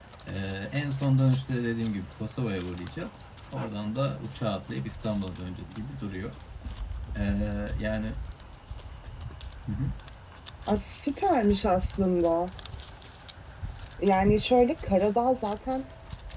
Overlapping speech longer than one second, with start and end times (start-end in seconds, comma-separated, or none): none